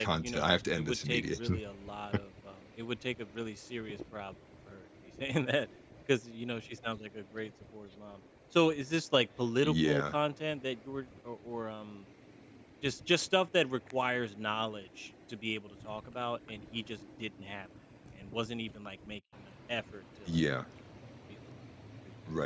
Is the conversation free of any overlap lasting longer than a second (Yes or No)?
No